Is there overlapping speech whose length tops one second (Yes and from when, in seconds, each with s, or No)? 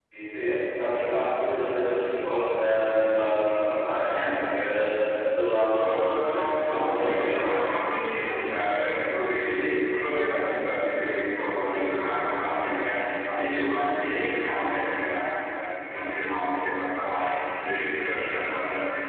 Yes, from 5.7 s